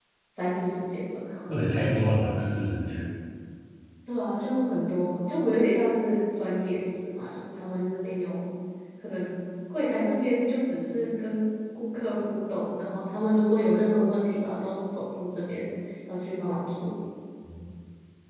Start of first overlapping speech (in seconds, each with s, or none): none